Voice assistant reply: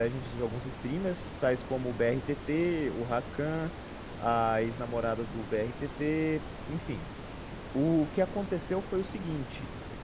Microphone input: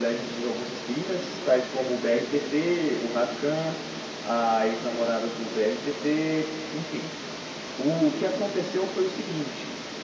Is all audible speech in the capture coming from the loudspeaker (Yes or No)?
Yes